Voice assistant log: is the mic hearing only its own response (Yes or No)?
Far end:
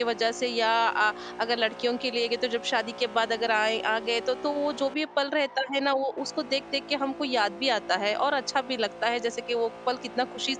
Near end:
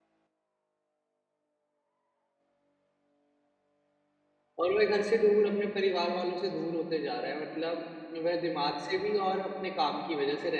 No